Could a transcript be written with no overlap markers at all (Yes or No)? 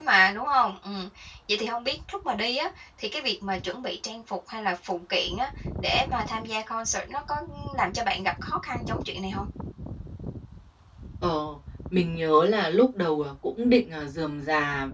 Yes